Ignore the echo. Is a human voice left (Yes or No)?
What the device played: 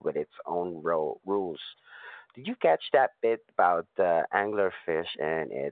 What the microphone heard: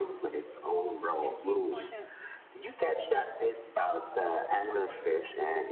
Yes